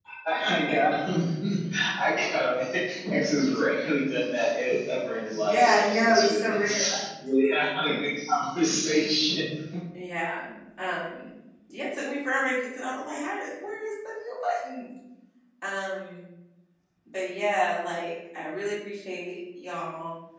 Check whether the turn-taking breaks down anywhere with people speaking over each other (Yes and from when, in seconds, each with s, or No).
Yes, from 5.3 s